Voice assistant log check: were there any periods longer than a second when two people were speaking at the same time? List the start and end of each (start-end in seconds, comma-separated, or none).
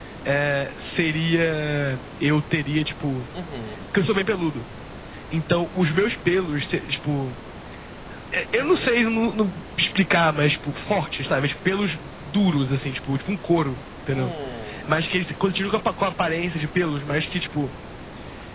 none